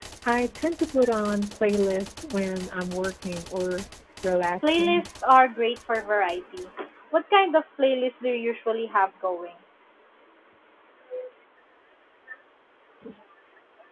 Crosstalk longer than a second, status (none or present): none